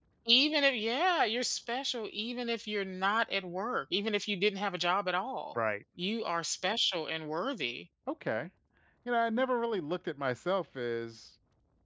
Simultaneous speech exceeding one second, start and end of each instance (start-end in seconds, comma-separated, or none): none